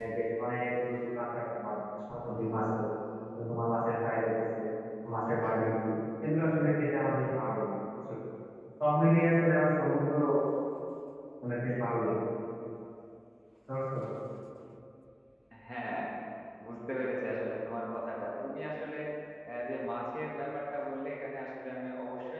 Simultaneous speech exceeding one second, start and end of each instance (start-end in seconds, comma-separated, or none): none